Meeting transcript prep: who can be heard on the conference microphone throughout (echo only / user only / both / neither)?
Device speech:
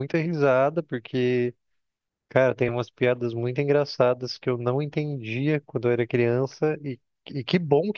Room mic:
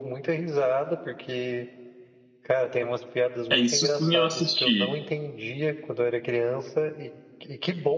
both